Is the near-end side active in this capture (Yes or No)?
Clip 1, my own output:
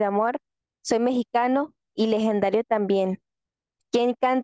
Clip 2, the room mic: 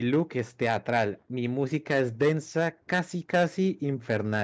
Yes